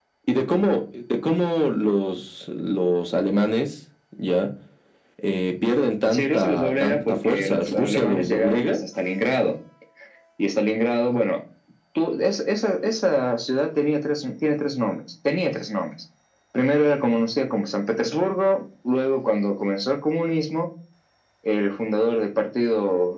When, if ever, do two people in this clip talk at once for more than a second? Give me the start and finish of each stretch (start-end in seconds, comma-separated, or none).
6.1-8.8